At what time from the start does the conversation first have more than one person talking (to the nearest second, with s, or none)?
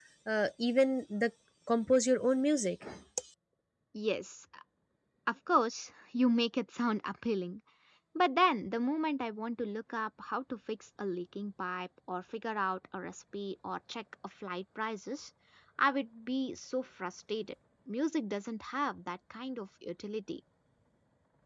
none